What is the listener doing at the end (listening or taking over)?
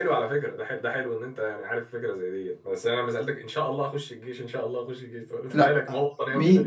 taking over